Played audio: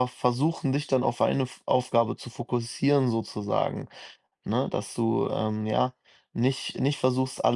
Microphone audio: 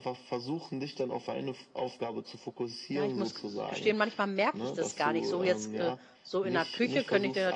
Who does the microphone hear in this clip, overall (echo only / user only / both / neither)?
both